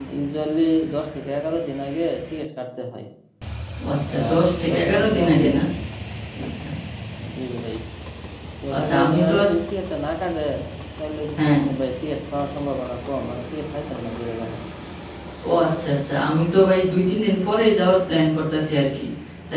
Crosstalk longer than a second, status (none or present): present